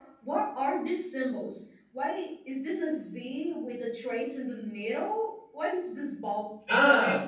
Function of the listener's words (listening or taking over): taking over